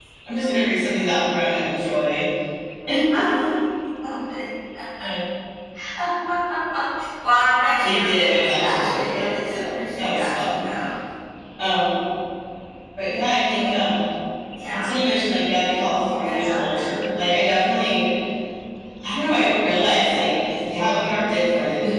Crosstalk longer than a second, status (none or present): present